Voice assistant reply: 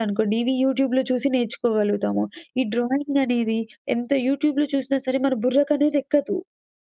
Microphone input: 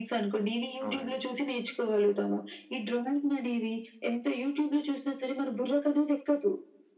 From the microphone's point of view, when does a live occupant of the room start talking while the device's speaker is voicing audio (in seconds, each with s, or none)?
0.9 s